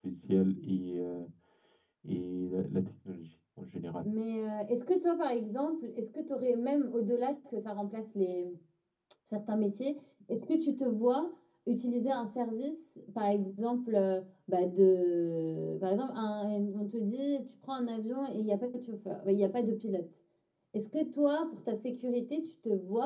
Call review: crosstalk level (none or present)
none